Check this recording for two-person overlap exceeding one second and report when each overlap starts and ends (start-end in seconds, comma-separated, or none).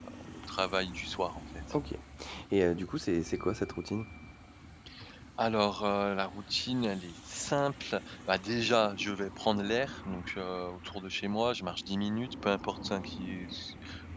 none